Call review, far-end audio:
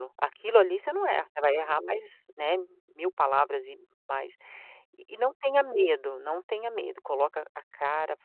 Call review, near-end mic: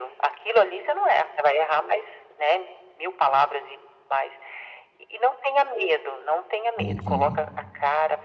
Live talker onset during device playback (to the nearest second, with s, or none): 7 s